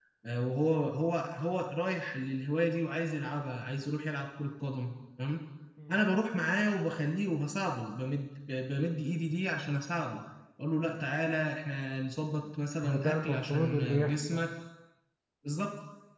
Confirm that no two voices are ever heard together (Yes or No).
No